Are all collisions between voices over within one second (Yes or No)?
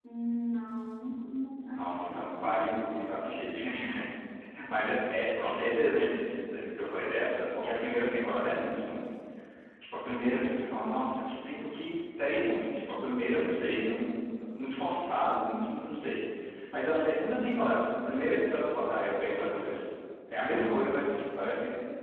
No